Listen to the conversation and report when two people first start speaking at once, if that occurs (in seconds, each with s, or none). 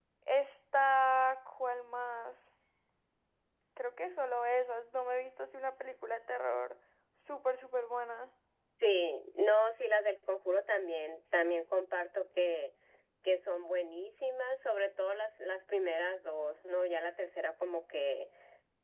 none